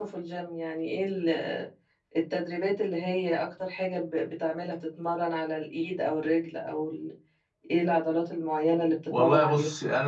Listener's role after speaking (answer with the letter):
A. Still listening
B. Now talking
B